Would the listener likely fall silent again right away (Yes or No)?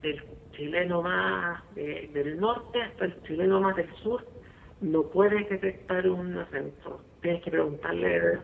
Yes